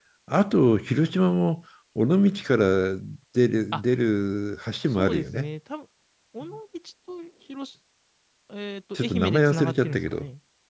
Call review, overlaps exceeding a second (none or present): present